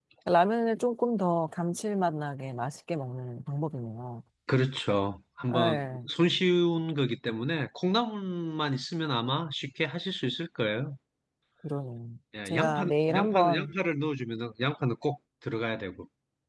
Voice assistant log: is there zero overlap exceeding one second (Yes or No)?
No